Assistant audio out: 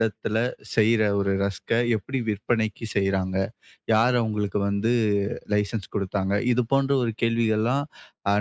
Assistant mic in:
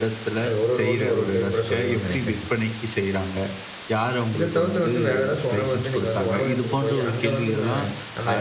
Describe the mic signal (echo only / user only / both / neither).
both